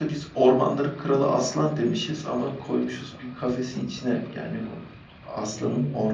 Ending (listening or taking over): listening